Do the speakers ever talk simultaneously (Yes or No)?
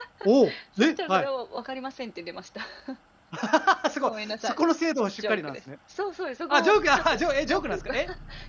Yes